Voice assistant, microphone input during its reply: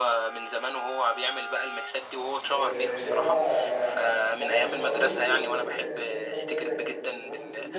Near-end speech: present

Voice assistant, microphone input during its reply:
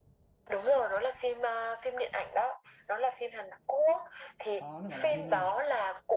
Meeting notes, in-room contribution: present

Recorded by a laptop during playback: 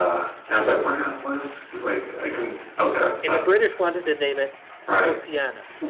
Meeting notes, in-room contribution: present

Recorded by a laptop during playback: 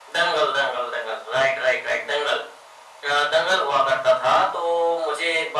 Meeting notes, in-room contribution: none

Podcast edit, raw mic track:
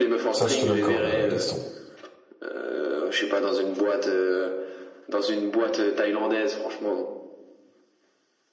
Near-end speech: present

